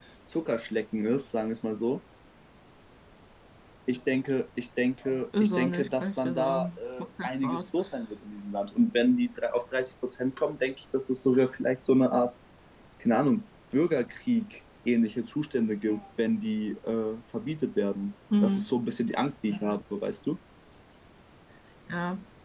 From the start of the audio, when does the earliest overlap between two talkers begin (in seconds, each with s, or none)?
5.4 s